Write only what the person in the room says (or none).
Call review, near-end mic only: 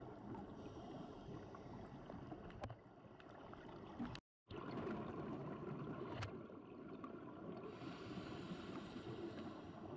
none